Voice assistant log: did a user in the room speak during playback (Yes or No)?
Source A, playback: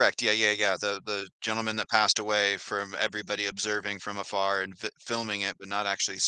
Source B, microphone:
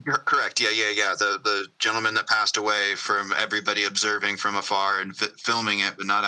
No